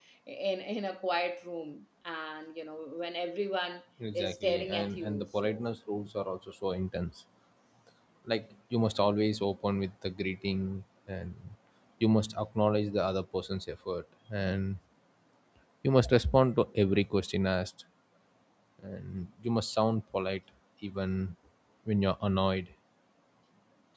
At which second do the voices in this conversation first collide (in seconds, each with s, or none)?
4.0 s